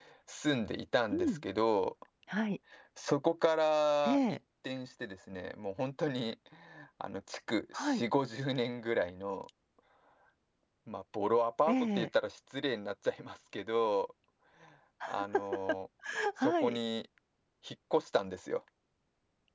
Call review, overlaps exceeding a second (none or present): none